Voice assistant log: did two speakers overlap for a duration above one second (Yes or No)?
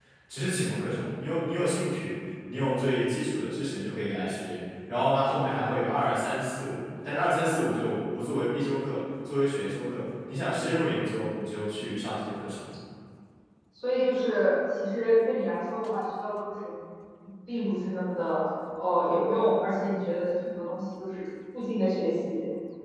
No